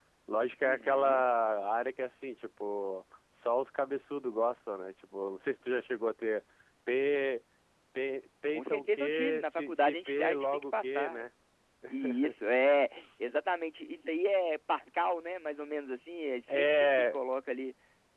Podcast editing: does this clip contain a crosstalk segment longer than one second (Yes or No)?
Yes